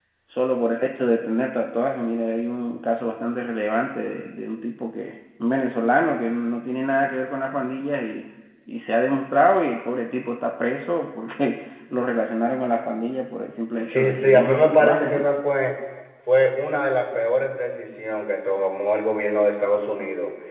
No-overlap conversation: No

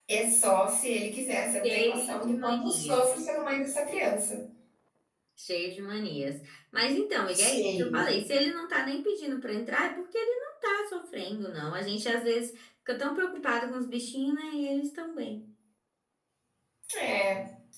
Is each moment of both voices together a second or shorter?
No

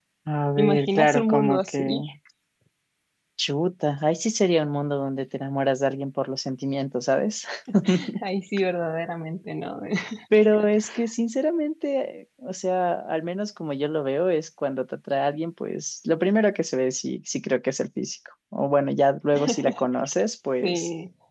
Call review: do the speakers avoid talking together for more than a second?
No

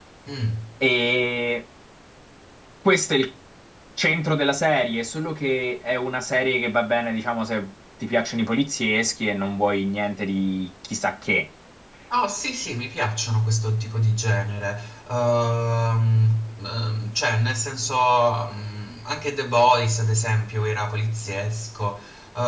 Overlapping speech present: No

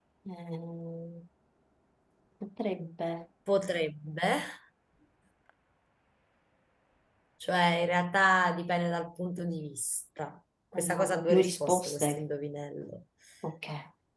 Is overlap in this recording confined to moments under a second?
No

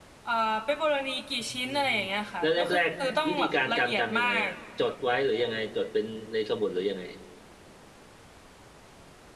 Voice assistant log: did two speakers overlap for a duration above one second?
Yes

